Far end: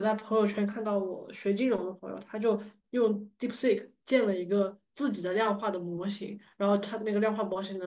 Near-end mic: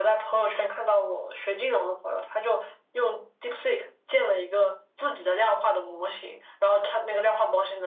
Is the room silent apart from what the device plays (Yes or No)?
Yes